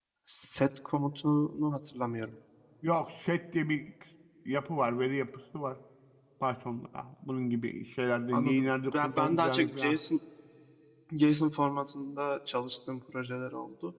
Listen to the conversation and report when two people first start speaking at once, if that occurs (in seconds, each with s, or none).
8.3 s